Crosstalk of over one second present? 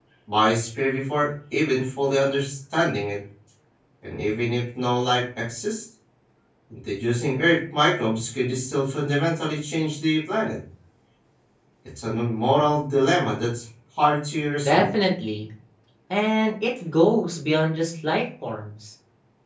No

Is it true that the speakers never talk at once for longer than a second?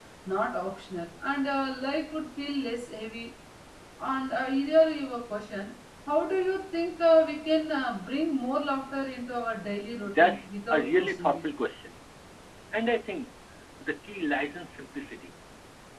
No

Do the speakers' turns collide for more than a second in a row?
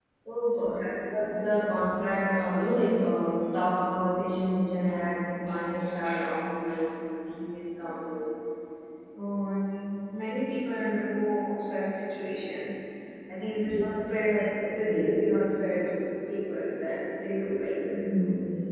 No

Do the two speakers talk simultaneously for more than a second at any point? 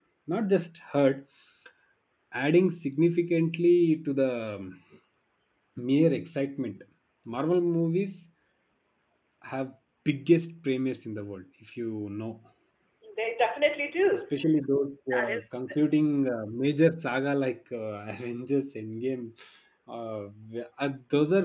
No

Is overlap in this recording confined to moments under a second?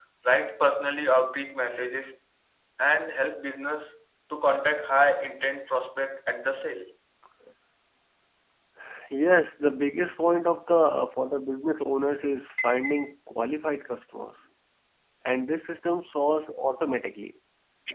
Yes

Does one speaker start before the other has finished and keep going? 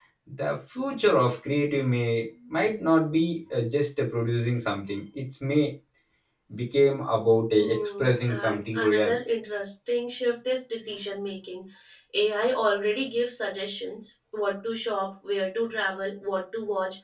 Yes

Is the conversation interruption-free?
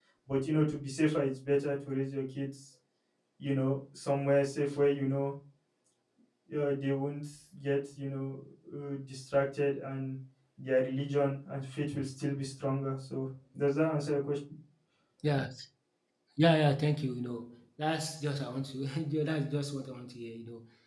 Yes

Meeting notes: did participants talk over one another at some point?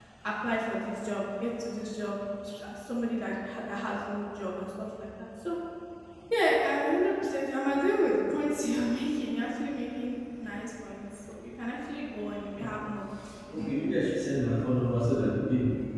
No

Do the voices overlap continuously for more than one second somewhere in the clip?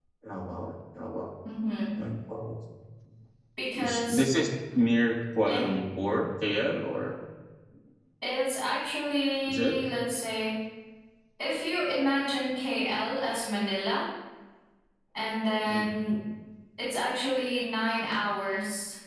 No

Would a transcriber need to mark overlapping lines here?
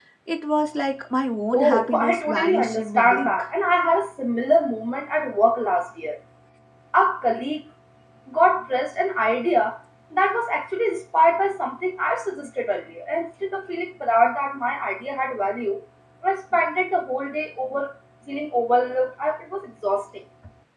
Yes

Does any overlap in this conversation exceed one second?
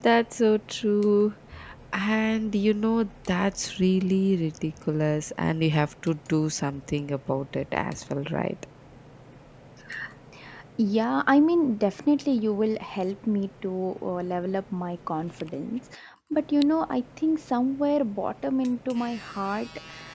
No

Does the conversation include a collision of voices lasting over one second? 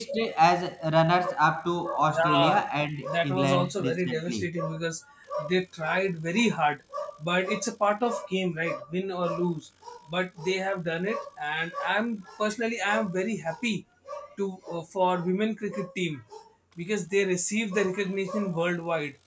Yes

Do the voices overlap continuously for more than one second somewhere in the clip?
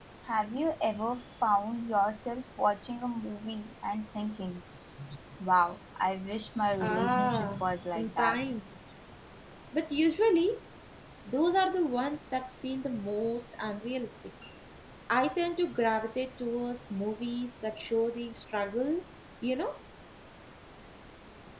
Yes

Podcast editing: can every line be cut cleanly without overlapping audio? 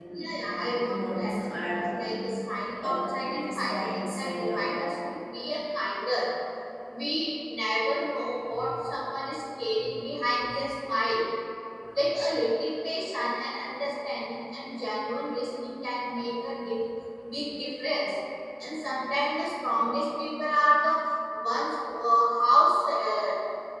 No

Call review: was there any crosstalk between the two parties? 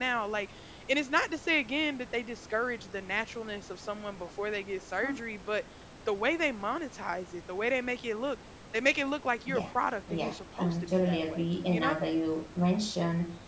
Yes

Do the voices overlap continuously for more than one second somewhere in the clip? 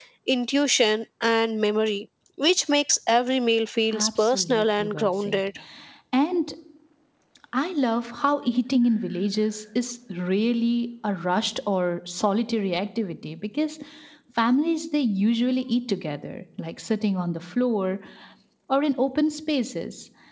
Yes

